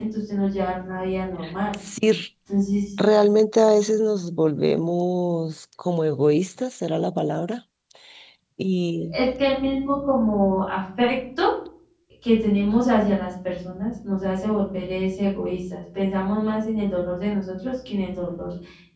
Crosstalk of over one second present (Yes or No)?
No